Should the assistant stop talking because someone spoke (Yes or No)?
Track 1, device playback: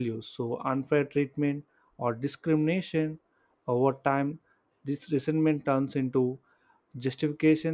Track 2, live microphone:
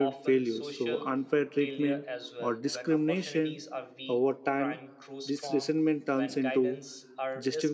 Yes